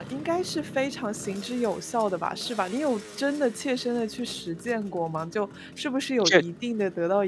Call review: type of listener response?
listening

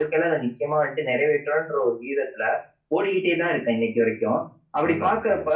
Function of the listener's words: listening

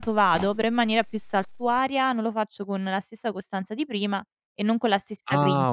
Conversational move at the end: taking over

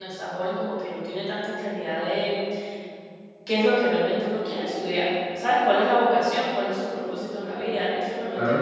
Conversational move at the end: listening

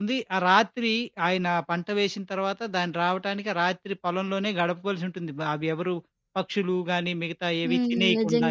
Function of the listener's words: taking over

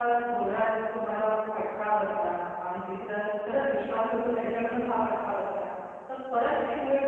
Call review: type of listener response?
listening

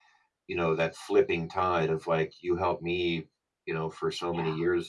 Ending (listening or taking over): listening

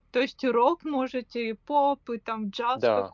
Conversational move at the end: taking over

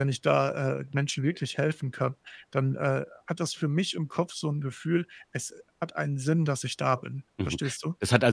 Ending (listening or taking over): taking over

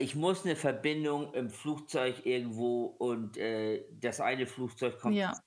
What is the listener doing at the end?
listening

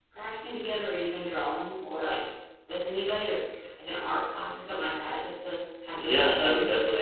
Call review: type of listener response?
taking over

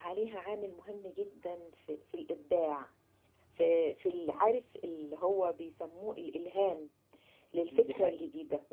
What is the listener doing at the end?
listening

